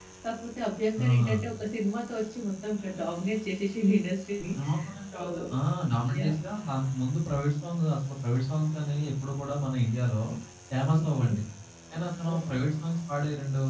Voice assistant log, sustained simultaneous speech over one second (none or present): none